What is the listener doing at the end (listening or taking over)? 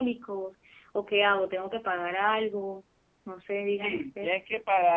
taking over